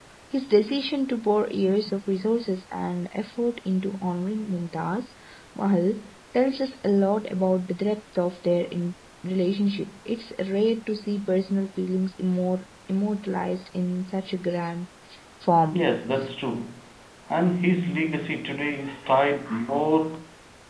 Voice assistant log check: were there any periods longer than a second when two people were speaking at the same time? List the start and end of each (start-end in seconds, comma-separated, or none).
none